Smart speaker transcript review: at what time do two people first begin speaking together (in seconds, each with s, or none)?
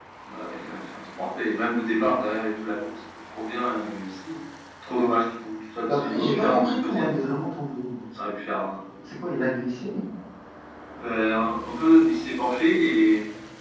5.9 s